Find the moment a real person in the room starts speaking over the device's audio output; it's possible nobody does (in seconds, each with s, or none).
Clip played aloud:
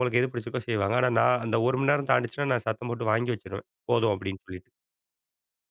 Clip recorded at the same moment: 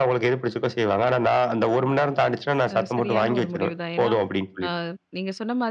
2.7 s